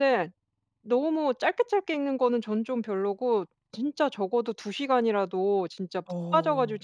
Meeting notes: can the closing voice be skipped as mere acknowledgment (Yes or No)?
Yes